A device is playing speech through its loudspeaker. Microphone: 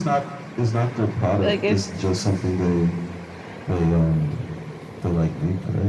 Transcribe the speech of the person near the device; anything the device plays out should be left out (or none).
Like if